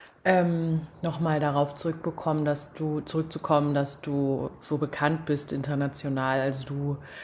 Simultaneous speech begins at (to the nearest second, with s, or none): none